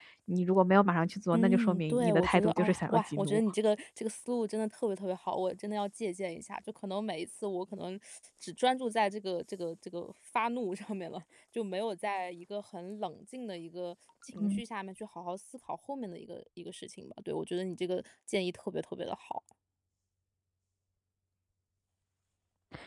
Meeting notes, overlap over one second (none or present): present